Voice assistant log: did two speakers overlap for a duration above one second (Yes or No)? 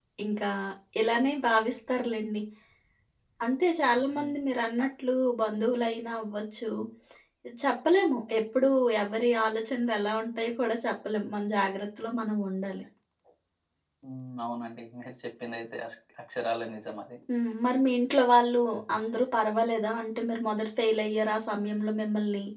No